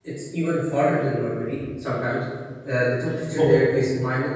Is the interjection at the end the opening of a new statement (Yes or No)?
No